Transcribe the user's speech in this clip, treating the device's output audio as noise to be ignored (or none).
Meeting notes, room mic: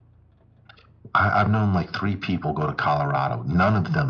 none